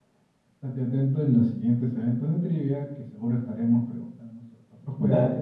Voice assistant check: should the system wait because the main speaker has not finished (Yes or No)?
No